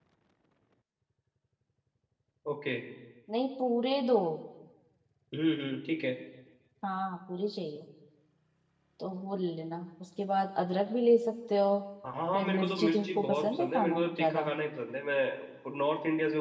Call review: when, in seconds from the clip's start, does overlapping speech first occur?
12.3 s

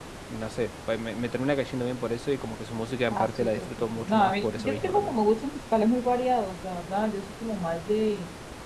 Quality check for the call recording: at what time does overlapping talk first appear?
3.1 s

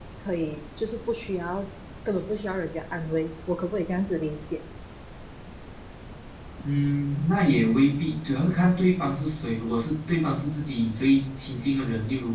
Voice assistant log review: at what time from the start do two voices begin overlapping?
none

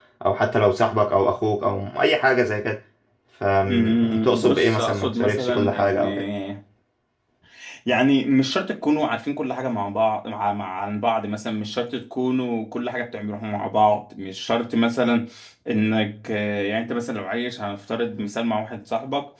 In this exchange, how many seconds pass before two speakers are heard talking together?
3.6 s

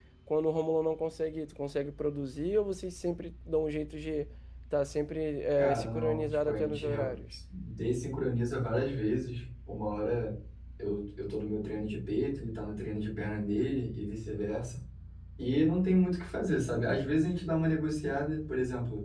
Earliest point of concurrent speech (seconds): 5.6 s

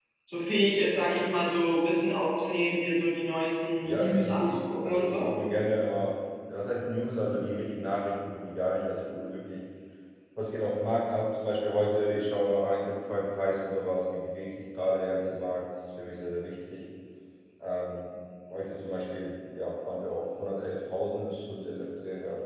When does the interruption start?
3.8 s

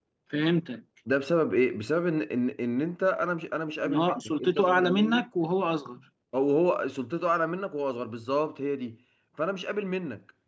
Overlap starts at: 3.8 s

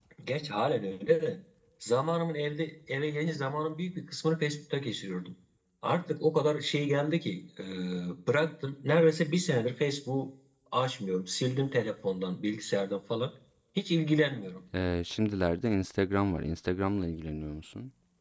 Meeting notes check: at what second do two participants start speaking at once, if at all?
none

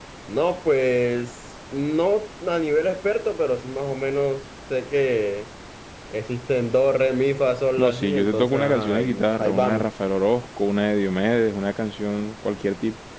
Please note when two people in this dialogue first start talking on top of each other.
7.8 s

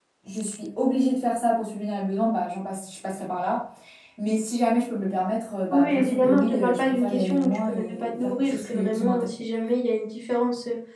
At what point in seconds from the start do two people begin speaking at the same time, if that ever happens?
5.7 s

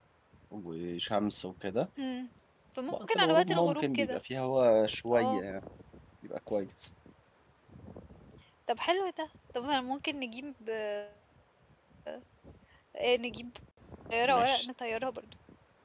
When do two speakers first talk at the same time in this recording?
2.9 s

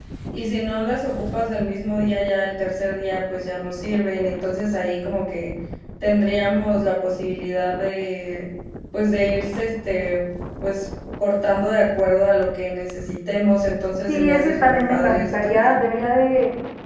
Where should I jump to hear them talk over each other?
14.1 s

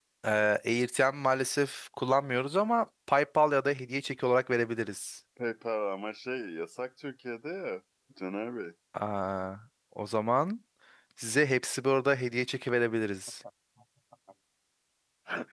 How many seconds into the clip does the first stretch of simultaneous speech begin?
none

